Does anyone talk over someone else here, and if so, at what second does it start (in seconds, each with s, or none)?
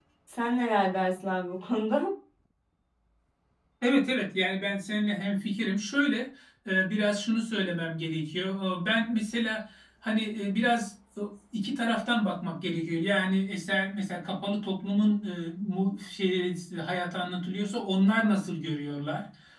none